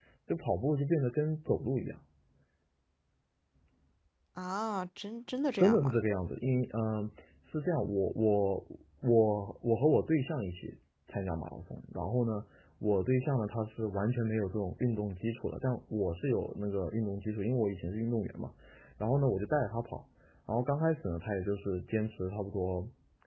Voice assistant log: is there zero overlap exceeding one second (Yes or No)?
Yes